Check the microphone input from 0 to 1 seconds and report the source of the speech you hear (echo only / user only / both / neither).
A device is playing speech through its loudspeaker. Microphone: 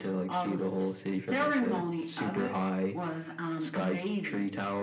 echo only